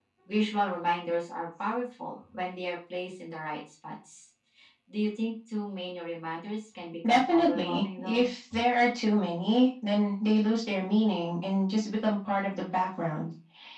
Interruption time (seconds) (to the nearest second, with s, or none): 7 s